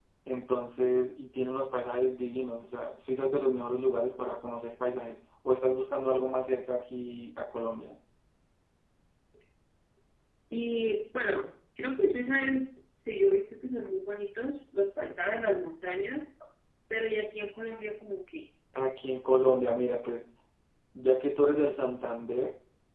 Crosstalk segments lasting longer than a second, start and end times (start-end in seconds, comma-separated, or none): none